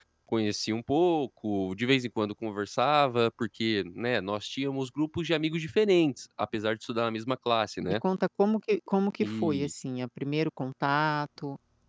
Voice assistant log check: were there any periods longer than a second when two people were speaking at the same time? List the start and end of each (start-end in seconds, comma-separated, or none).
none